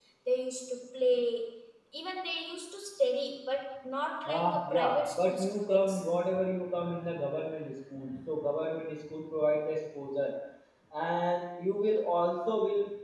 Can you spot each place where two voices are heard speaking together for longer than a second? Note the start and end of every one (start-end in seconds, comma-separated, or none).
4.2-6.0